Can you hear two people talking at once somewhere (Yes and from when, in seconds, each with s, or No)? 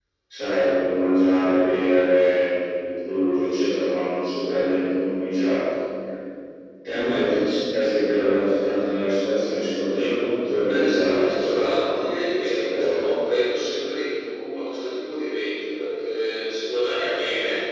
Yes, from 10.6 s